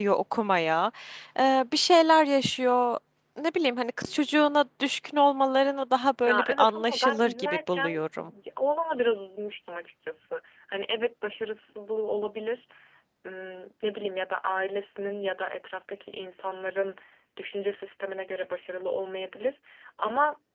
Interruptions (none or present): present